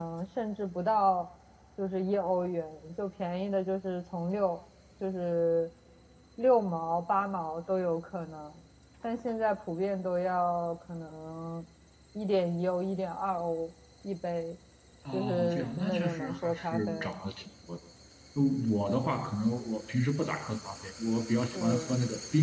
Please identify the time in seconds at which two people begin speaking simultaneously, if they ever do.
15.1 s

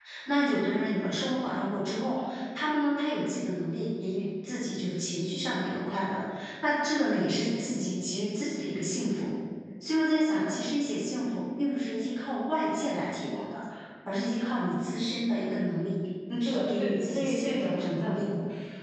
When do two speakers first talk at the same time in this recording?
16.4 s

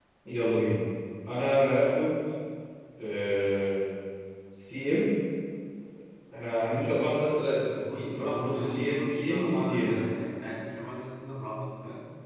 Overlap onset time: 7.8 s

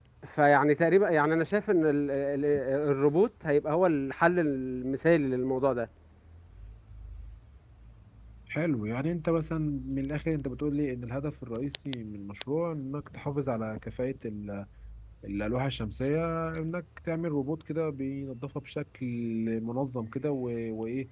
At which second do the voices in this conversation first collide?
none

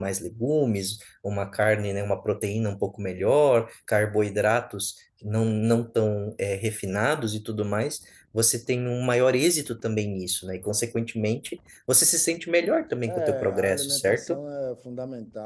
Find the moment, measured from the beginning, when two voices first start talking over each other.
13.1 s

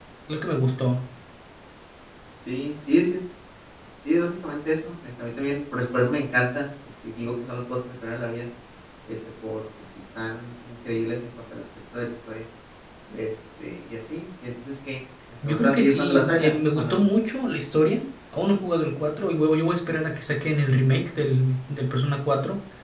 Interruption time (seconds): 15.4 s

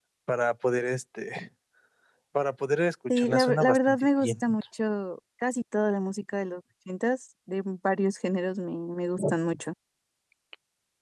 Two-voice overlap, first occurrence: 3.2 s

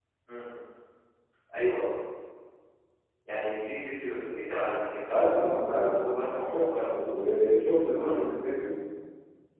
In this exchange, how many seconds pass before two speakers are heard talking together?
5.1 s

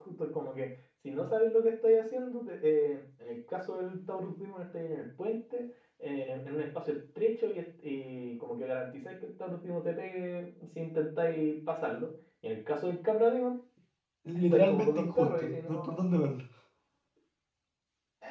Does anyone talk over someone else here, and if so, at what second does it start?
14.5 s

